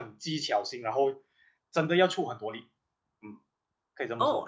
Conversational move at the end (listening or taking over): taking over